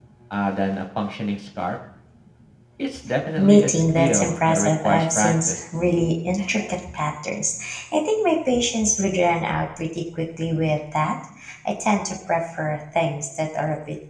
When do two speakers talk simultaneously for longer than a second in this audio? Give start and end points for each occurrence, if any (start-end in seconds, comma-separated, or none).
3.4-5.6